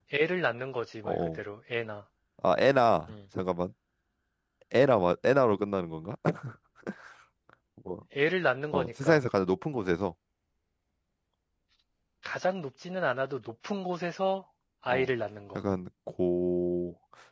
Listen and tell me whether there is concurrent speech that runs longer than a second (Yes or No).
No